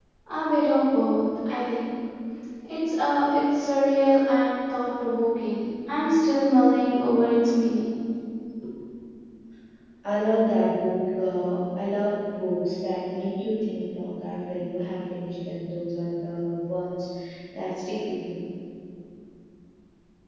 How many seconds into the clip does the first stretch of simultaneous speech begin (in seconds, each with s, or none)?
none